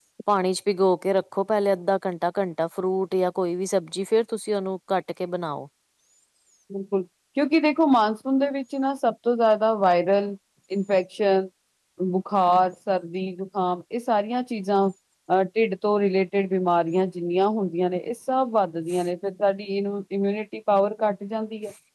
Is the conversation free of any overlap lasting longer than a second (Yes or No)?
Yes